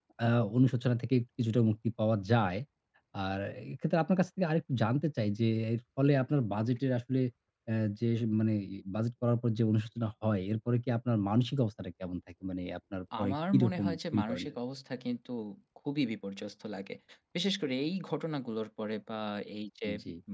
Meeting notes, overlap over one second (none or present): present